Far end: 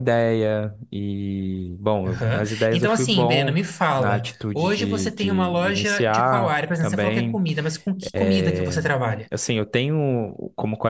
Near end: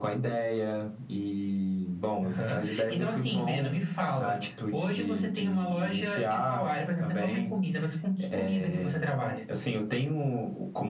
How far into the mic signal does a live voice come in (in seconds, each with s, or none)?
none